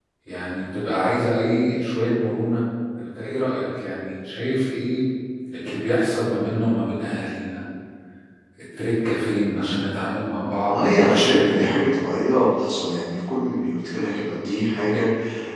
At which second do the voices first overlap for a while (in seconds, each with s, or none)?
10.6 s